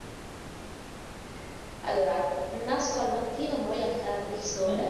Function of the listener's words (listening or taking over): taking over